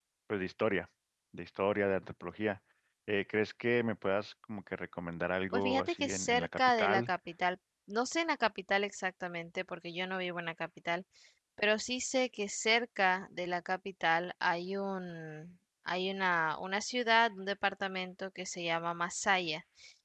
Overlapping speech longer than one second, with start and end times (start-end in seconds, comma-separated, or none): 5.5-7.1